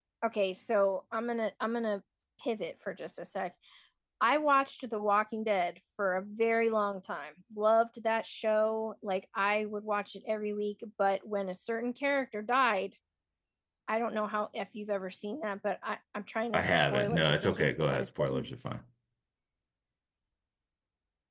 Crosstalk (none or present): present